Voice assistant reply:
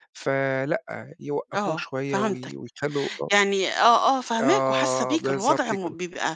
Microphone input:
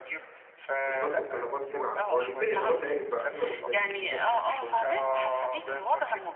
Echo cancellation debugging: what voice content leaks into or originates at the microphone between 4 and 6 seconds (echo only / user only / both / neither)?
both